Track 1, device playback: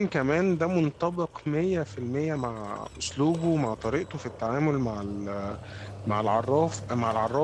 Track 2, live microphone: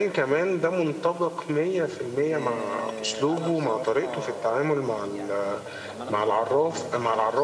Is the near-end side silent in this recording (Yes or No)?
No